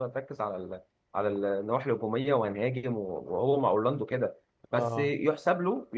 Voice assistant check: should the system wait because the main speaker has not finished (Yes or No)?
Yes